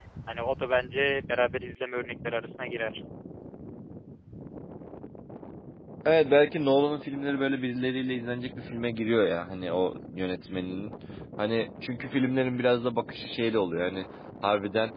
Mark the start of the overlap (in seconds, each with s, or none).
none